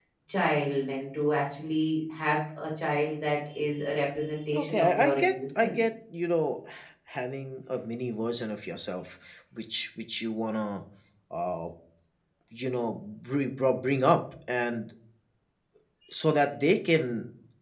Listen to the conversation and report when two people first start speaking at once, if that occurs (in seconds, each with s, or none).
4.5 s